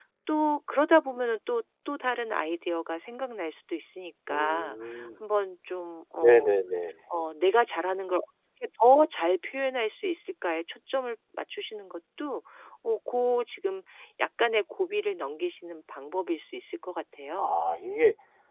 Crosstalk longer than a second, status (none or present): none